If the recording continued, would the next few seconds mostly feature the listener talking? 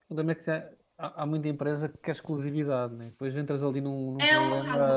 Yes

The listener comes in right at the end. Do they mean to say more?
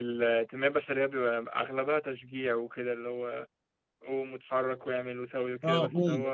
Yes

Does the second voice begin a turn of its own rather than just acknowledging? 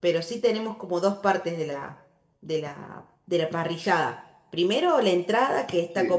No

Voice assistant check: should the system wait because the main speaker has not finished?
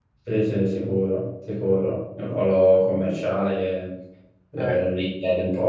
Yes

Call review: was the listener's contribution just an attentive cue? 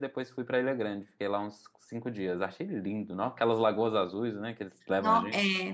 No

